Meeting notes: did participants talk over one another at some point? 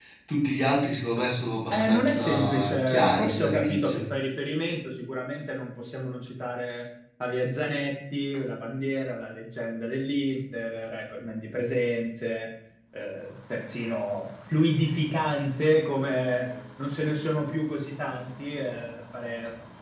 Yes, from 1.7 s

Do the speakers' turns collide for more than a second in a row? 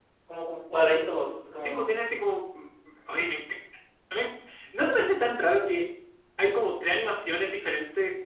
No

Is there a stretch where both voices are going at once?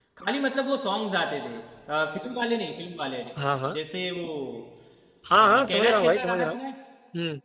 Yes, from 5.4 s

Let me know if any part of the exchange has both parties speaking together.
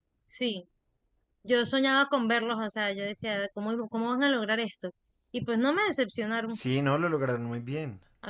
No

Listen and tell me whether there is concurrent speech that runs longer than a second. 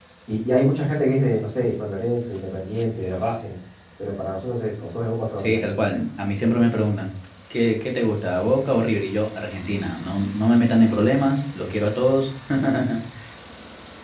No

